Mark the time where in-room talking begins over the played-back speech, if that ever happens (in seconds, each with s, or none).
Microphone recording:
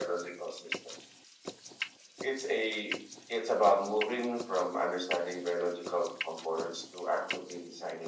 none